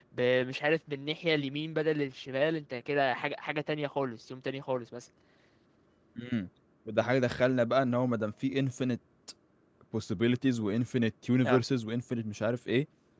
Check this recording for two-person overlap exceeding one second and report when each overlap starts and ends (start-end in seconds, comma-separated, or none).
none